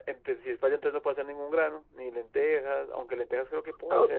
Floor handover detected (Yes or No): Yes